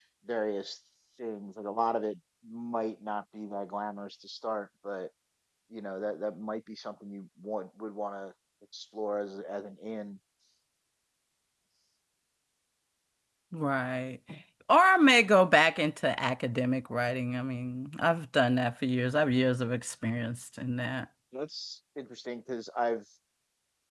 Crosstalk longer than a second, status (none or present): none